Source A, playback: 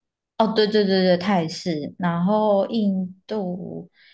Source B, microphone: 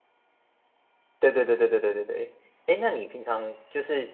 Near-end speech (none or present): present